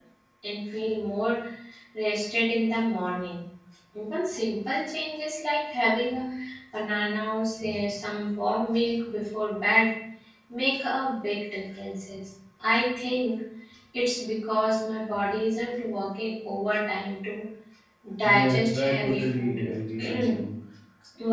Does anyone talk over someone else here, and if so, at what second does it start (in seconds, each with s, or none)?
18.2 s